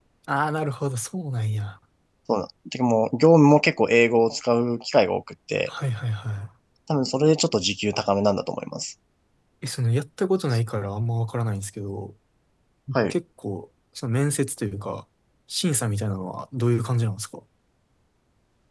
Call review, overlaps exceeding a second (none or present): none